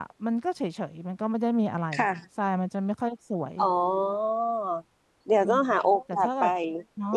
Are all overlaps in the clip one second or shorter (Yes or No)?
Yes